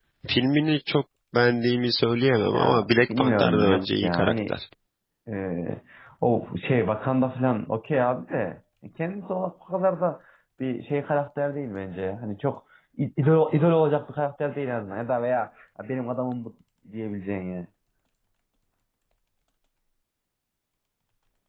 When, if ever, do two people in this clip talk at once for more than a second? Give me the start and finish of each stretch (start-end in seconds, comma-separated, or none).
2.4-4.5